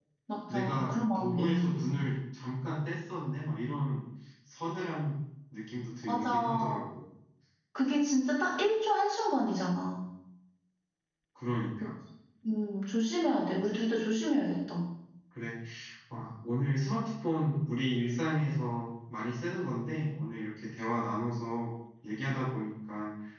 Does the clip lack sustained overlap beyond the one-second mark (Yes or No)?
No